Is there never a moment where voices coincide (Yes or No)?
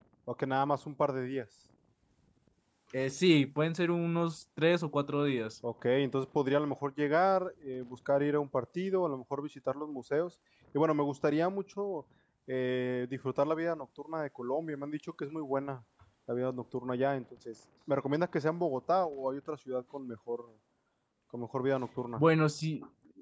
Yes